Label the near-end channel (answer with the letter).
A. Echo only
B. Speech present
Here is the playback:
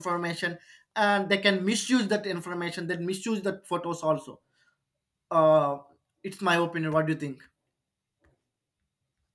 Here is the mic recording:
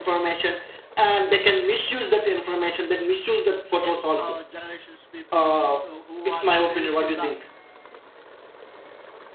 B